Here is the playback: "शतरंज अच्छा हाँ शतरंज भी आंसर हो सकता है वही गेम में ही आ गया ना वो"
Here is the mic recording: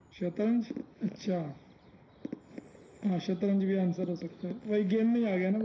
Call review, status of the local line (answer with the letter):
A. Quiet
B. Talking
A